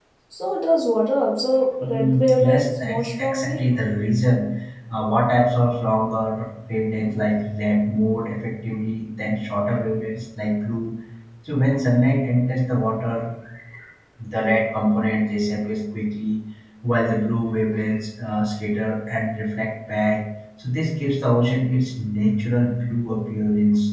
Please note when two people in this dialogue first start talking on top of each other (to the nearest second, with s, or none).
2 s